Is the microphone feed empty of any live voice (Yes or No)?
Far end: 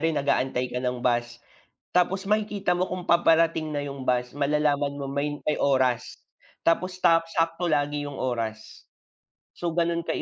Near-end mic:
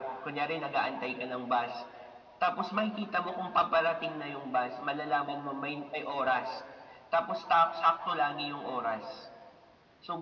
Yes